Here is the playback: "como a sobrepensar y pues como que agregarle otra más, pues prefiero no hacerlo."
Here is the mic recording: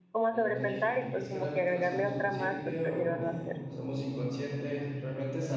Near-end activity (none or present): present